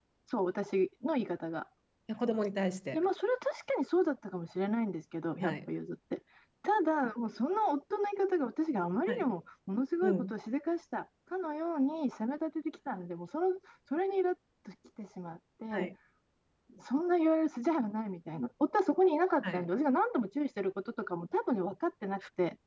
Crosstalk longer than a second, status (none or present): none